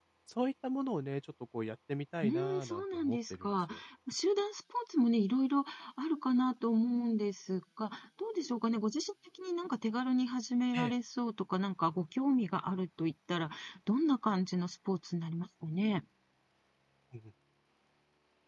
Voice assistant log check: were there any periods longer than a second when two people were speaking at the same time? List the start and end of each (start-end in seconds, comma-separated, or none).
2.2-3.6